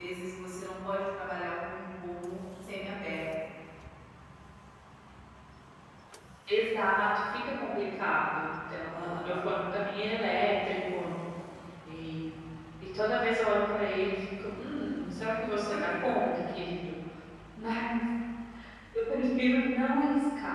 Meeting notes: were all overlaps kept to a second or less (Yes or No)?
Yes